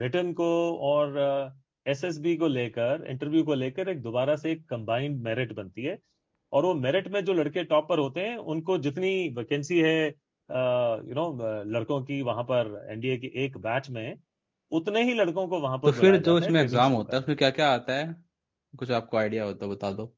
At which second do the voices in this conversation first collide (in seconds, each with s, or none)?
15.8 s